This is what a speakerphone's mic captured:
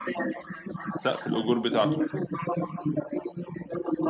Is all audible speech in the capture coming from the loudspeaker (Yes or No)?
No